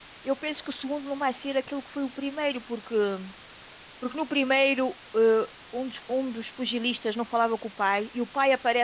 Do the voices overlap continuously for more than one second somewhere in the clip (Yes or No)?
No